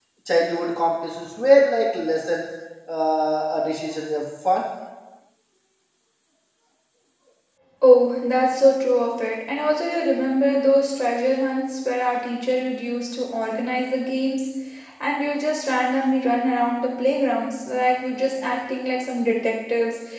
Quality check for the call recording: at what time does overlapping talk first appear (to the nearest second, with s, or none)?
none